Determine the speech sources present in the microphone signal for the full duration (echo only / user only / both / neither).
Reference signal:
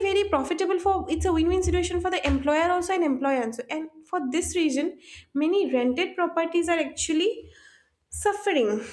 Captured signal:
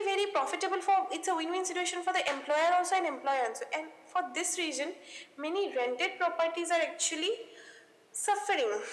echo only